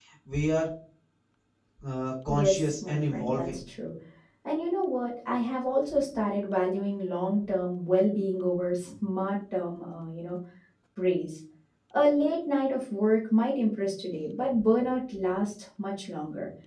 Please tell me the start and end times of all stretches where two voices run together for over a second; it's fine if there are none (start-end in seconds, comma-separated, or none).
2.3-3.6